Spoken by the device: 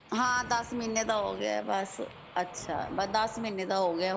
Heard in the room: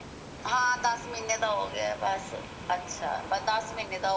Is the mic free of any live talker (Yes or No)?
Yes